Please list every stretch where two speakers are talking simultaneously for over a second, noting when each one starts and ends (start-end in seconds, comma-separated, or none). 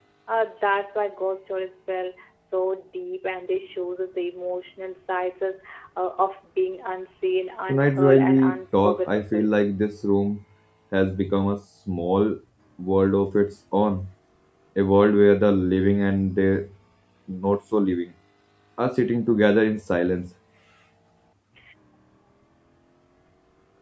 7.7-9.5